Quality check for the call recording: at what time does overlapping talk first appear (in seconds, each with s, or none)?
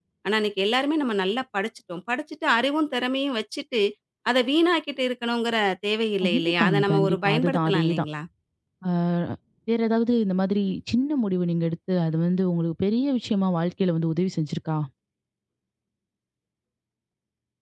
6.2 s